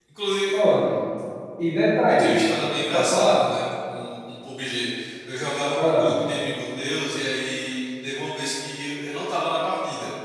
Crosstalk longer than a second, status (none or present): none